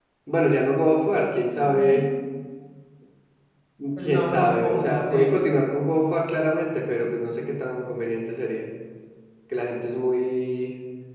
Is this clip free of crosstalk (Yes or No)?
No